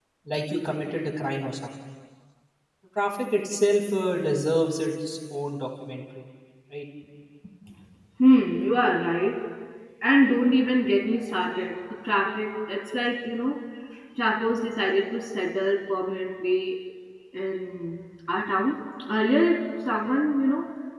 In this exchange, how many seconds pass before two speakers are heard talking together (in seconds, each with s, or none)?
none